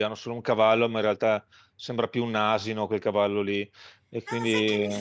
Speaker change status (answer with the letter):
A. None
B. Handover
B